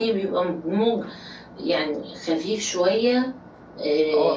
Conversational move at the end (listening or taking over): taking over